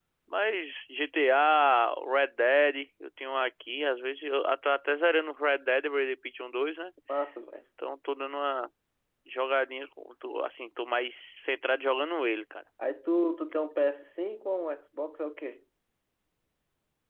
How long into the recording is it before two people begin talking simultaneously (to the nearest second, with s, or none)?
none